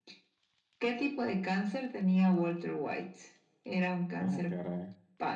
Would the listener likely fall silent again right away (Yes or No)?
Yes